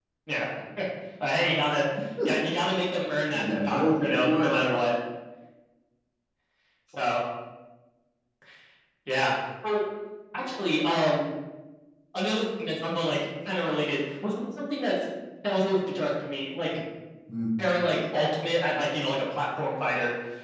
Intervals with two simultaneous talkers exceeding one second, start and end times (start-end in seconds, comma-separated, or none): 3.3-4.6